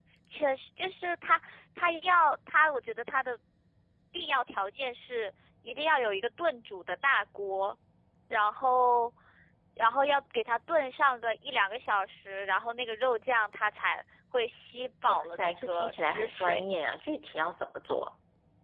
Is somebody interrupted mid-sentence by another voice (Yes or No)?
Yes